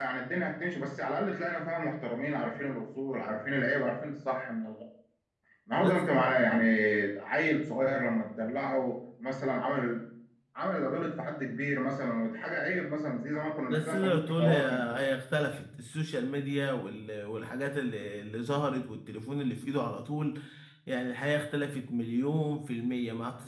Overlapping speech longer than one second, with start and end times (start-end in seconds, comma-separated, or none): 13.6-14.9